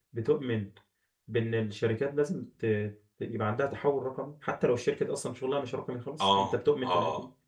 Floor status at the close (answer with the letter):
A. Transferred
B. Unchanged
A